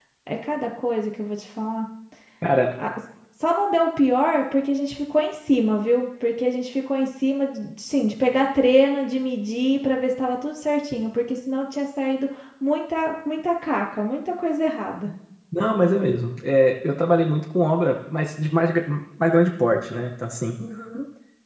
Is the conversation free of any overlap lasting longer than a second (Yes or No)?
Yes